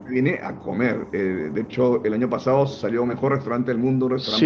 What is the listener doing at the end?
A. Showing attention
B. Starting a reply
B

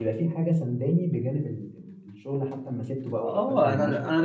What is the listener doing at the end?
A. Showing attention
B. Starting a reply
B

